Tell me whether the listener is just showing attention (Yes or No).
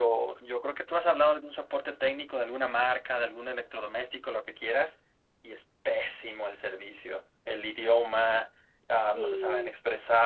Yes